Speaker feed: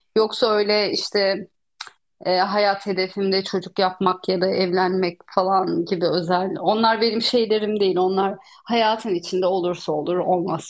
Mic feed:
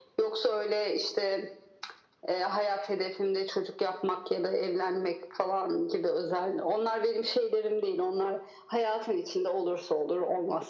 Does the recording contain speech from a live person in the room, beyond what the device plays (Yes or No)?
No